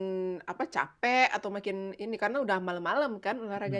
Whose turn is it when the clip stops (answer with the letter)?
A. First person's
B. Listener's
B